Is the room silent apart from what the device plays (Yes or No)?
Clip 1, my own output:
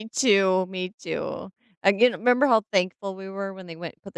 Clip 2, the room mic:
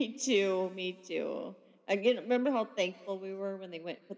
Yes